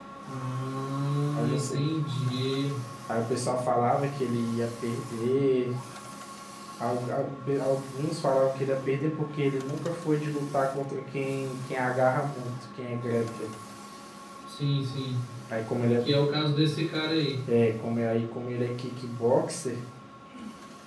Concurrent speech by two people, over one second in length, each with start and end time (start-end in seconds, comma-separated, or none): none